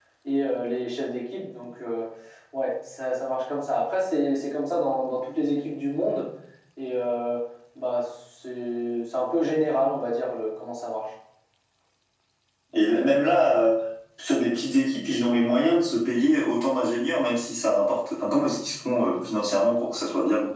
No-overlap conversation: Yes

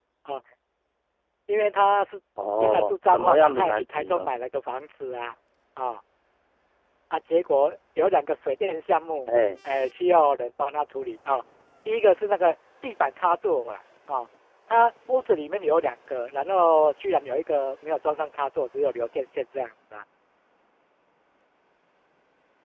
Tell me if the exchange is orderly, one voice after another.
No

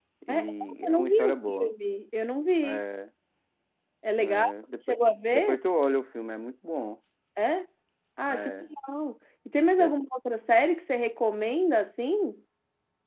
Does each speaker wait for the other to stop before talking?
No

